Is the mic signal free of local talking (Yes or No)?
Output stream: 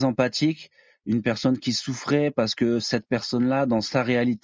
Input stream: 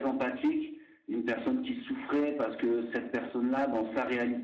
Yes